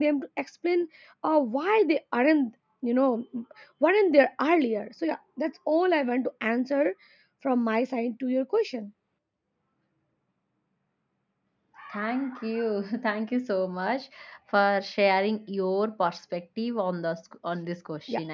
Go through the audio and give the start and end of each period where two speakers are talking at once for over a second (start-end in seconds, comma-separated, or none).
none